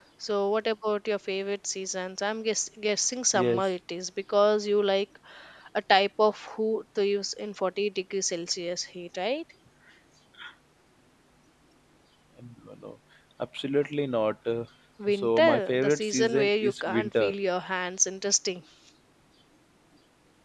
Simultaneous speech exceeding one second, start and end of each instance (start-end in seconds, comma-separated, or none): 15.1-17.3